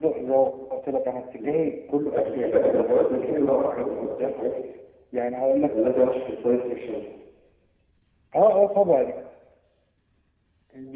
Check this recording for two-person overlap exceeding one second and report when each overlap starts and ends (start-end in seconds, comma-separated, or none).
2.1-4.3